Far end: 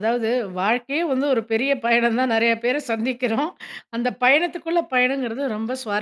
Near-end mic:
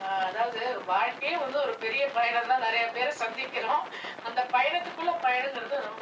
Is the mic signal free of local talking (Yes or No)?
Yes